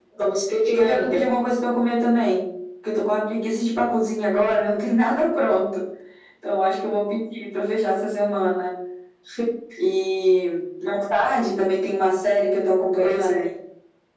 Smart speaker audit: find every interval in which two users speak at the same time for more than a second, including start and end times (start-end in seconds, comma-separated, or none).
none